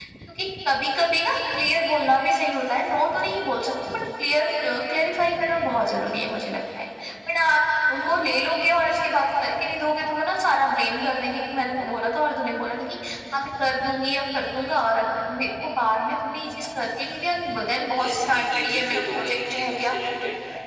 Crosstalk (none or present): present